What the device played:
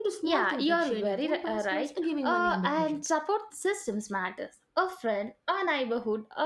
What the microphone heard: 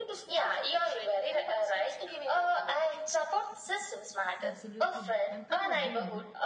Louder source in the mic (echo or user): echo